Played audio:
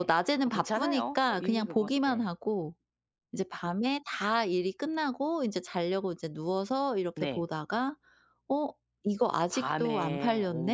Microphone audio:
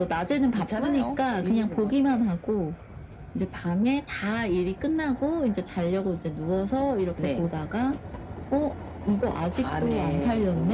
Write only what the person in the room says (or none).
none